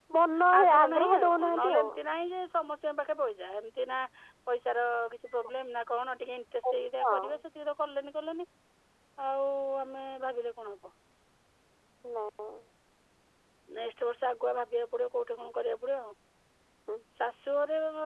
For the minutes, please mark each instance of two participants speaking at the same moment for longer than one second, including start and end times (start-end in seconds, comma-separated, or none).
0.6-1.9